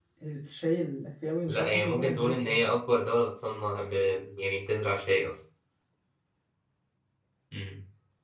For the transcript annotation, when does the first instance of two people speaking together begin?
1.5 s

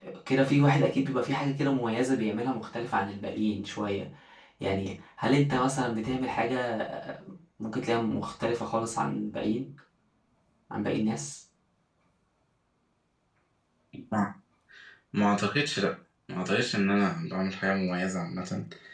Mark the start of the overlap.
none

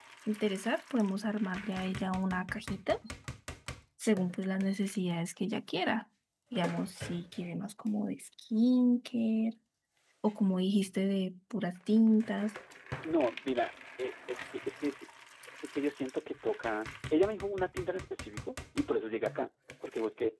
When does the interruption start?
none

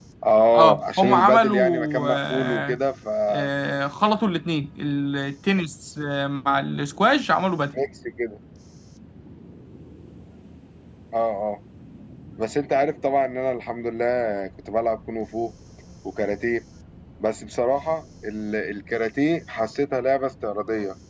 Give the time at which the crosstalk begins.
0.5 s

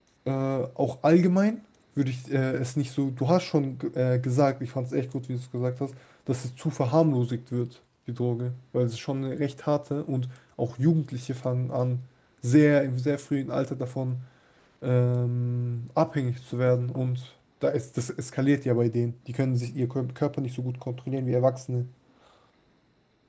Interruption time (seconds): none

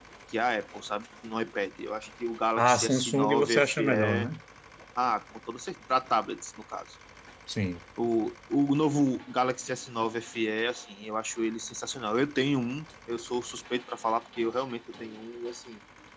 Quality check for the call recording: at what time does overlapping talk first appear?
2.6 s

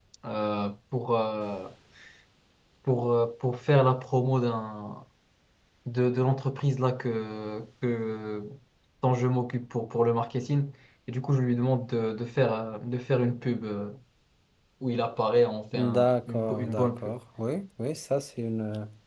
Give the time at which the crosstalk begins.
15.7 s

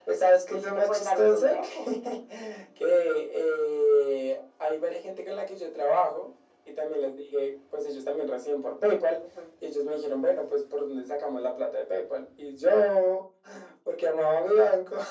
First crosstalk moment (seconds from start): 0.5 s

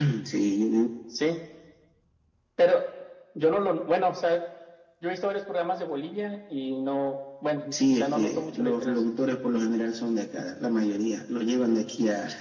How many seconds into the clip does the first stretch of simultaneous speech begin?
7.7 s

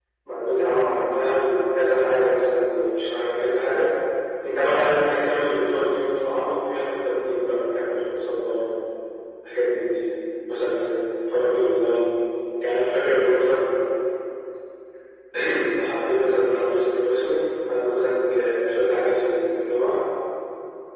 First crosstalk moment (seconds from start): none

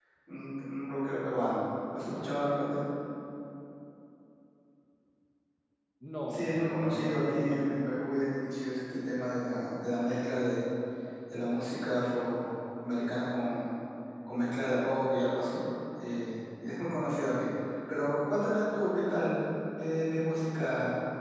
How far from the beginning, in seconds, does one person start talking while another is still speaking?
6.3 s

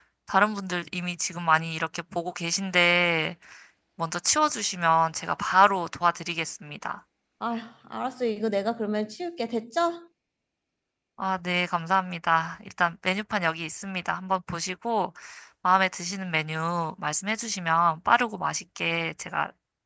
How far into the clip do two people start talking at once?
none

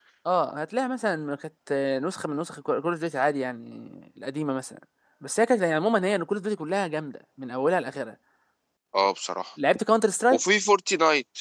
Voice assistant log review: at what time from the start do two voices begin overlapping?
none

